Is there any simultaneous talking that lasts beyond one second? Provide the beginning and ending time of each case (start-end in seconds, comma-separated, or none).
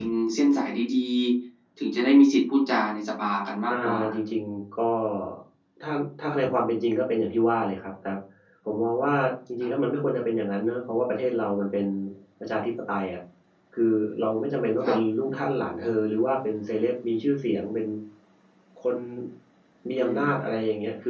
none